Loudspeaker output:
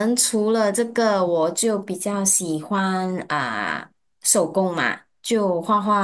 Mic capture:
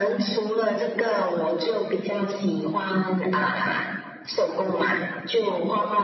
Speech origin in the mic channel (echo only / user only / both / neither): echo only